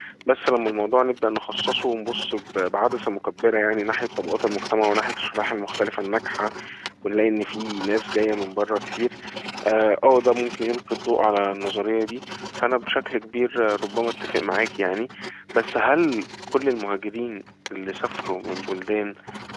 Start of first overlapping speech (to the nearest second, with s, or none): none